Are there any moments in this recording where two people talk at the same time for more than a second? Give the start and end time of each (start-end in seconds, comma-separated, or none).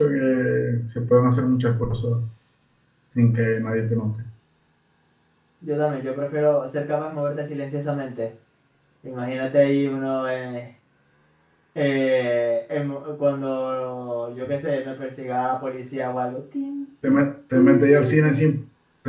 17.1-18.5